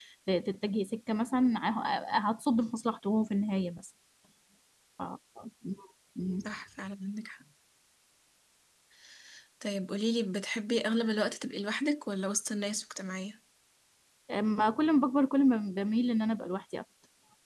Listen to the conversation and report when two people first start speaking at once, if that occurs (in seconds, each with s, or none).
none